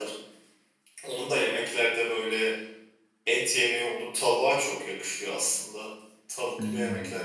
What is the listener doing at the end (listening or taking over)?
listening